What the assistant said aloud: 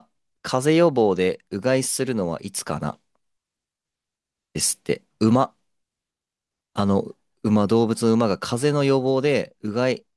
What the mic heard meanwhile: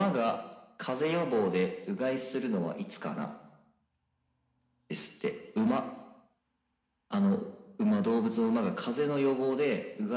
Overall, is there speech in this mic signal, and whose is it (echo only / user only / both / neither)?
echo only